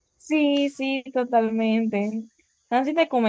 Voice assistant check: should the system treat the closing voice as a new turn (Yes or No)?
No